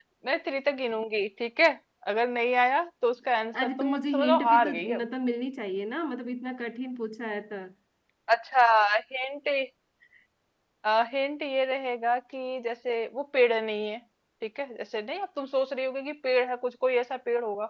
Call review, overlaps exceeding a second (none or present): present